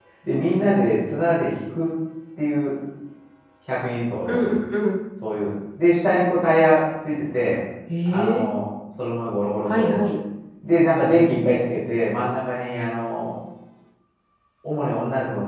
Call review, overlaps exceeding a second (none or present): none